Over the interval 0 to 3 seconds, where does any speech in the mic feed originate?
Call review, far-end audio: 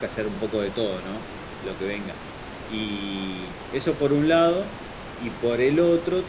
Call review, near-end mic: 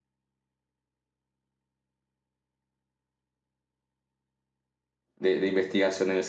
neither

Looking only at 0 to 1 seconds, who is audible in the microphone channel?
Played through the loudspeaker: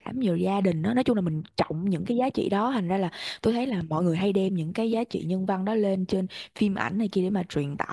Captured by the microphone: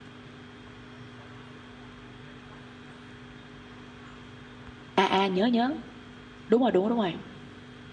neither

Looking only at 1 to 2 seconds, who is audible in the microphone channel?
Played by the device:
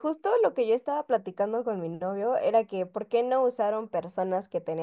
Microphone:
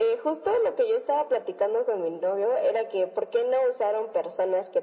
echo only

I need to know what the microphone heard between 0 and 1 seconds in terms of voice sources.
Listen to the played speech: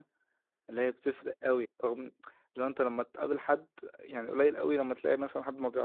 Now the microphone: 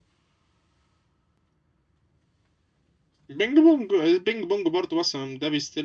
neither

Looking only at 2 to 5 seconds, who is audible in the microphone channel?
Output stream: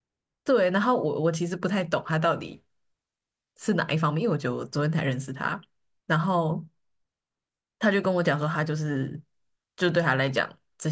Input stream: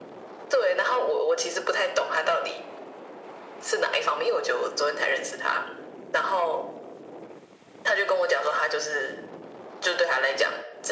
echo only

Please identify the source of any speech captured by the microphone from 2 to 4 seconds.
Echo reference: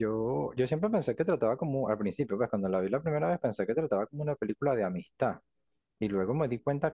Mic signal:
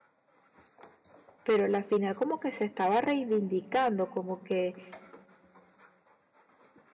user only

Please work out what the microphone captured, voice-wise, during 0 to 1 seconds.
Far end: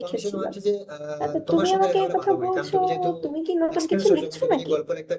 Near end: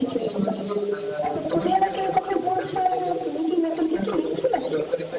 echo only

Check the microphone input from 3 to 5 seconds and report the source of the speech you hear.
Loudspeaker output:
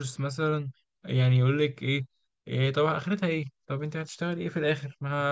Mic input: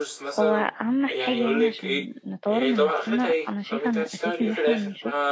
both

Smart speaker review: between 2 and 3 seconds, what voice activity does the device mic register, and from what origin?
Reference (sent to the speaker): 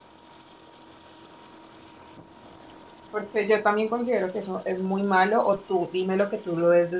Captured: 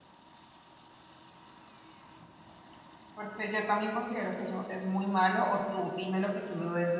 neither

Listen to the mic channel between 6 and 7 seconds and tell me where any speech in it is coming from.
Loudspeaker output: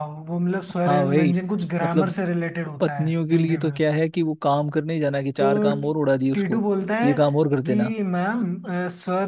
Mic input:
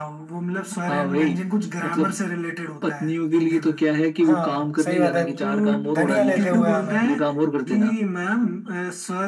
both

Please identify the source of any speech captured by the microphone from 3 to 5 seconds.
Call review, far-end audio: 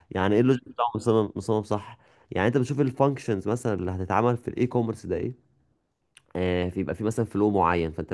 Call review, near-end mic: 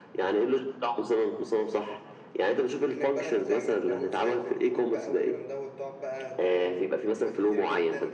both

